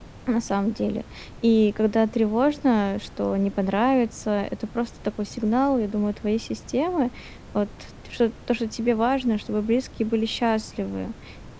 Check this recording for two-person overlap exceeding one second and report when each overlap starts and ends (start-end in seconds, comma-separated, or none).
none